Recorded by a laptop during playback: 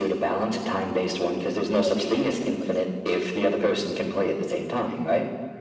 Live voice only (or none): Well, maybe we can play some competitive.